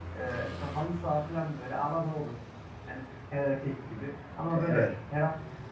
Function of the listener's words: listening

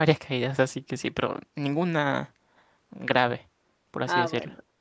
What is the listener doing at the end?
taking over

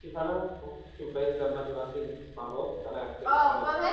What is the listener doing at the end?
taking over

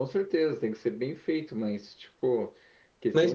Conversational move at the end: taking over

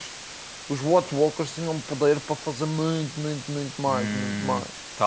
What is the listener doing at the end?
taking over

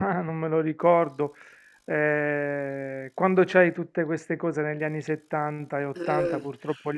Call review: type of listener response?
listening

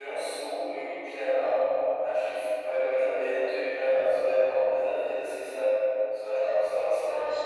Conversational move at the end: listening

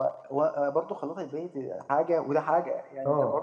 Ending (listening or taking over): listening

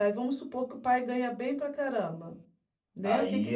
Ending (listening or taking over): taking over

